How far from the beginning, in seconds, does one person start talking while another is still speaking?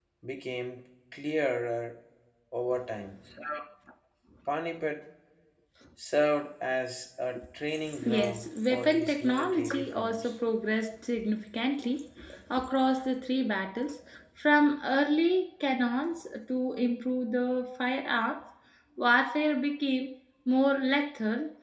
8 s

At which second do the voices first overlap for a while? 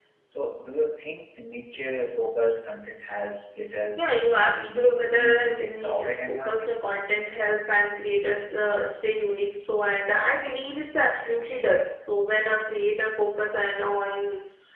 4 s

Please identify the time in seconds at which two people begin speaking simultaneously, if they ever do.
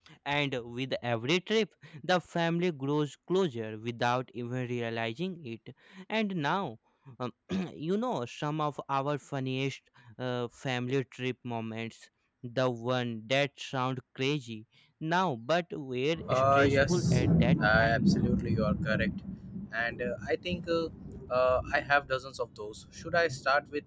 16 s

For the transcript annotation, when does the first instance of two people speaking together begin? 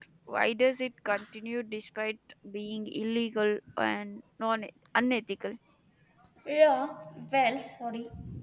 none

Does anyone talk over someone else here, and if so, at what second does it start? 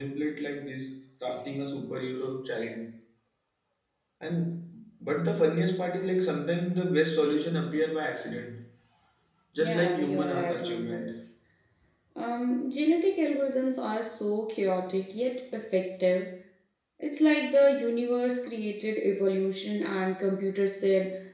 10 s

